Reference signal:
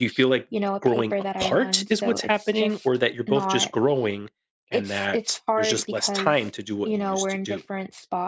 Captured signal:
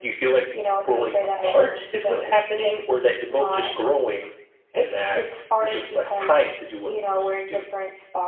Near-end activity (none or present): none